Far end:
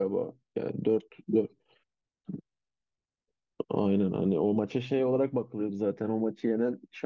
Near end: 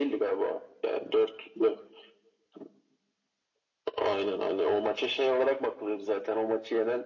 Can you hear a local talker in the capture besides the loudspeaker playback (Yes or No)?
No